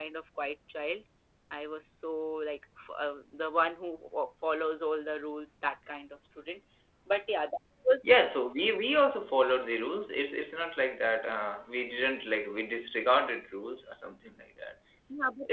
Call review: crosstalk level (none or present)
none